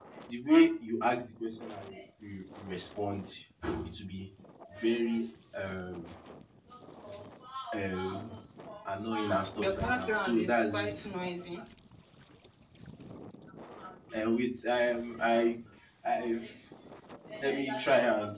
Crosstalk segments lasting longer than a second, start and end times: 9.6-11.1

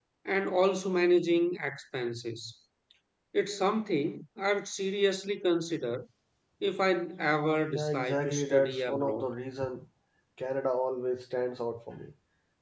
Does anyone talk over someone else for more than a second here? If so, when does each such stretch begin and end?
7.7-9.3

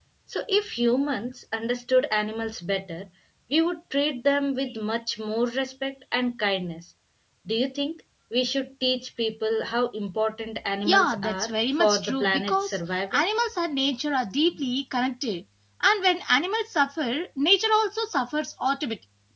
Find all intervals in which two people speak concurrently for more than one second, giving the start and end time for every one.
10.8-13.2

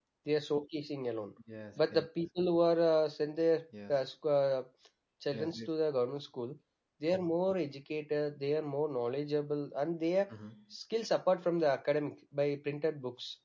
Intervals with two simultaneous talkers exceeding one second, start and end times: none

